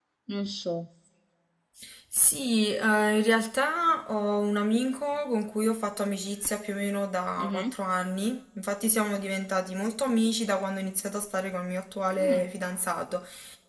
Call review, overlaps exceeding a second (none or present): none